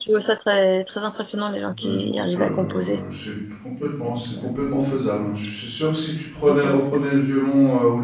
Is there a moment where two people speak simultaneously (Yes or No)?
Yes